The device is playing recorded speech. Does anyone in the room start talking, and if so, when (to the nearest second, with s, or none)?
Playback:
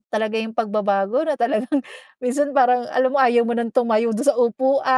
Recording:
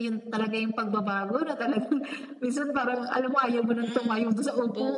4 s